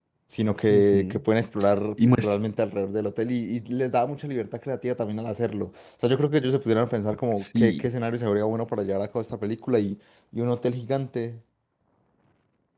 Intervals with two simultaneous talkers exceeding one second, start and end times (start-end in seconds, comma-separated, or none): none